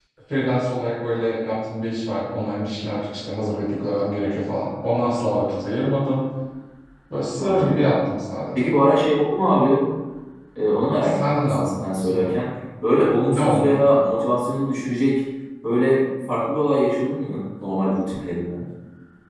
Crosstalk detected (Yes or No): Yes